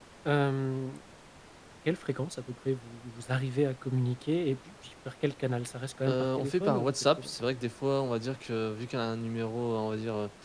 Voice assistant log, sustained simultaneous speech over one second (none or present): present